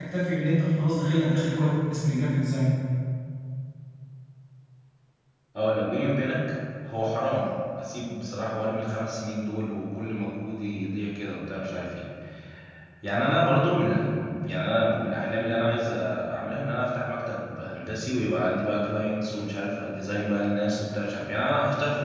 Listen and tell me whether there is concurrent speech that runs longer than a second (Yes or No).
No